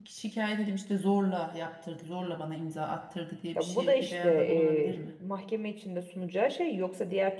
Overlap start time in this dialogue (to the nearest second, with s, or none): 4 s